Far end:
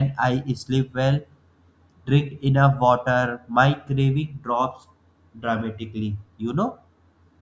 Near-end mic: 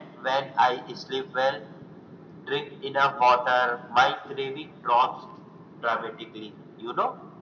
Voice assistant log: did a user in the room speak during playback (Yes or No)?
No